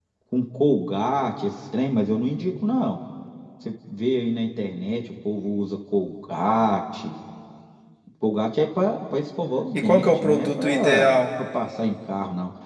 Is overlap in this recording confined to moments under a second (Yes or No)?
No